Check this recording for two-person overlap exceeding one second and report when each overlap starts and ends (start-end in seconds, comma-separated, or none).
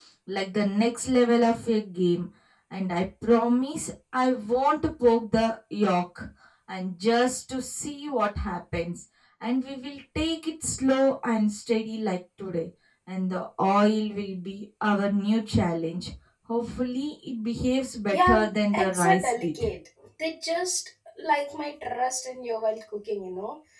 18.1-19.7